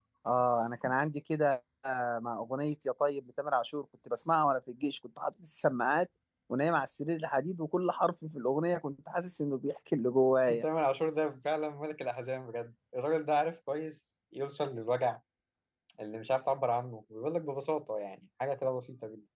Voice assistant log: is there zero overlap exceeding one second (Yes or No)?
Yes